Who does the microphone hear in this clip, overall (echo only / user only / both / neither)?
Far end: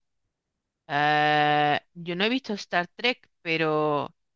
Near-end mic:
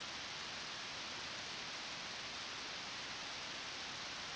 neither